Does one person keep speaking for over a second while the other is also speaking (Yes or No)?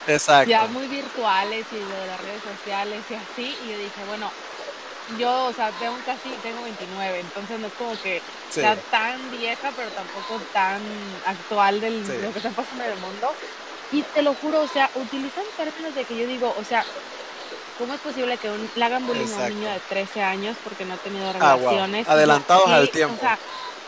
Yes